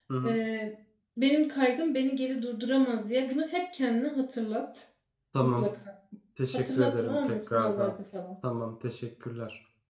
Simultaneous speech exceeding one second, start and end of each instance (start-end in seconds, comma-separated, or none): 6.5-8.0